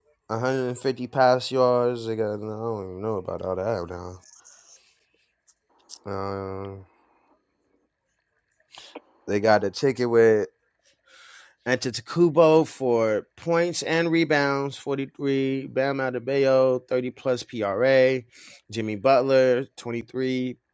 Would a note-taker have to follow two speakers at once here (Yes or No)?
No